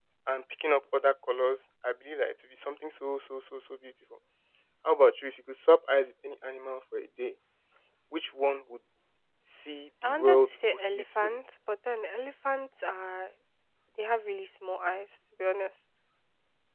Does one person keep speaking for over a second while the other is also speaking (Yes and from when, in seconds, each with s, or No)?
Yes, from 10.0 s